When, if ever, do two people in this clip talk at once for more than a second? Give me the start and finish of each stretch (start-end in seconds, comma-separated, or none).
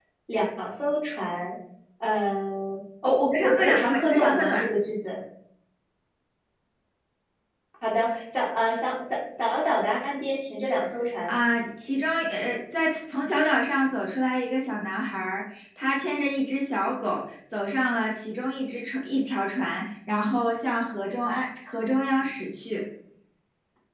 3.3-4.7